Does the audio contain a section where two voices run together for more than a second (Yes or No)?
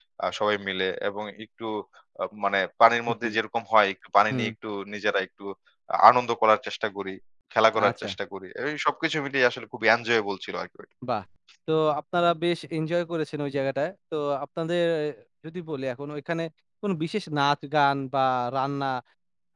No